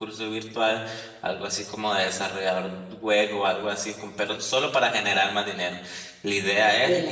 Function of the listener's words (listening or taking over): listening